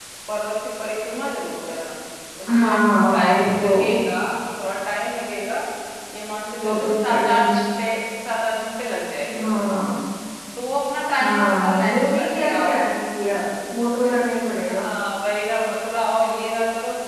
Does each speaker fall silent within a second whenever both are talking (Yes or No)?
No